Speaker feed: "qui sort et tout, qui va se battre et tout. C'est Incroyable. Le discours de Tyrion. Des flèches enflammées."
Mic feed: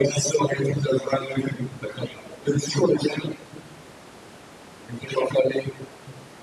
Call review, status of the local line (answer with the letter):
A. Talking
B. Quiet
B